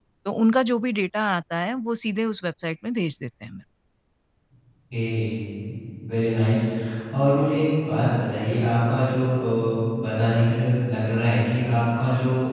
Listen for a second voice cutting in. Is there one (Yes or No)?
No